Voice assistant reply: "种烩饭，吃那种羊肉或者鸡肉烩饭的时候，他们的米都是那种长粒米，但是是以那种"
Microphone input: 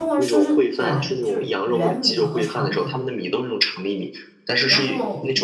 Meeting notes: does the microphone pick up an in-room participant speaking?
Yes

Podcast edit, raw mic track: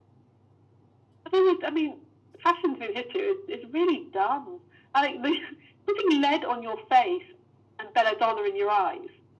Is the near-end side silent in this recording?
Yes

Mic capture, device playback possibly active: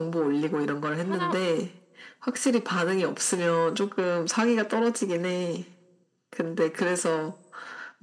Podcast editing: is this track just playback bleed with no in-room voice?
No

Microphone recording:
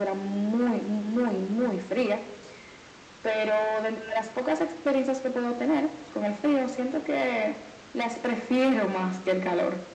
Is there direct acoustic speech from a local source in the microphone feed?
No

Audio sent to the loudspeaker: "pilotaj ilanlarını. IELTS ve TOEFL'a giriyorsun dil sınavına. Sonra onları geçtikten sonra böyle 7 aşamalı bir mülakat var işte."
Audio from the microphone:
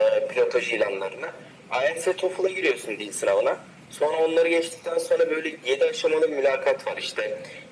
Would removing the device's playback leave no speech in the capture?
Yes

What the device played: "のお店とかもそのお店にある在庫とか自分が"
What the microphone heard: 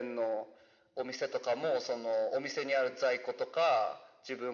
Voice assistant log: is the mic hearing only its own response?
Yes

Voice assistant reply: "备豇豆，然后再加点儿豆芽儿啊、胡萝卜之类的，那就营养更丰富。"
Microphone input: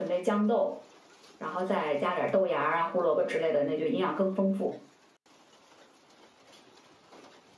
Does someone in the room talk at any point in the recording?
No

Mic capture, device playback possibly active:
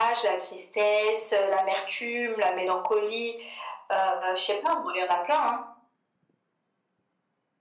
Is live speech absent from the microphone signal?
Yes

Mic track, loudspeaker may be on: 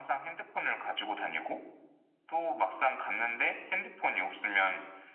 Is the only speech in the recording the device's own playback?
Yes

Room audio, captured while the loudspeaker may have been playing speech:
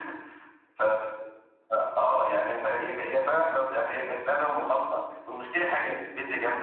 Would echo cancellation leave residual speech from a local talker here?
No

